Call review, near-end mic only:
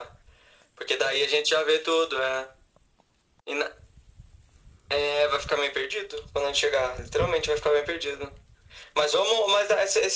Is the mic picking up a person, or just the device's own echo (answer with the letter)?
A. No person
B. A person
A